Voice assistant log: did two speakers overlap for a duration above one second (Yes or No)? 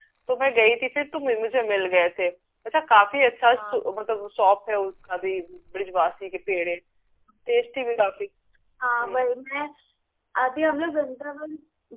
No